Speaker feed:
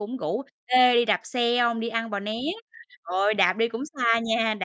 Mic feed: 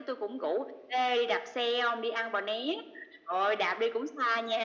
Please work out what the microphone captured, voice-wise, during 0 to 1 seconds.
echo only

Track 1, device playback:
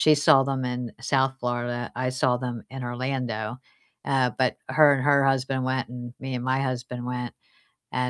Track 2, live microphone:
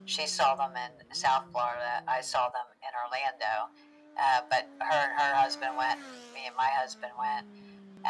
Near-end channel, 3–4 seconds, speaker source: echo only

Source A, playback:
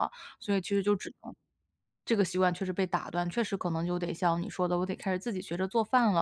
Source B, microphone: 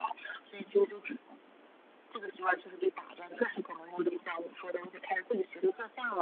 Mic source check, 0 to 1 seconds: echo only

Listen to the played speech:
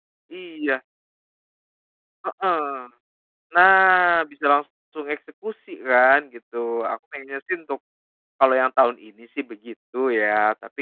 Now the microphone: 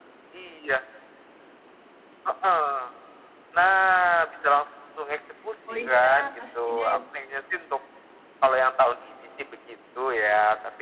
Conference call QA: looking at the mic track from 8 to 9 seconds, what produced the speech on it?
echo only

